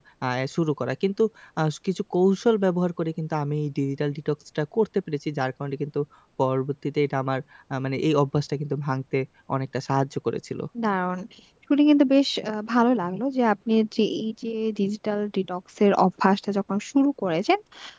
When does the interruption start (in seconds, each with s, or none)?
none